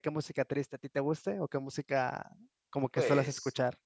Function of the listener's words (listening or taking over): taking over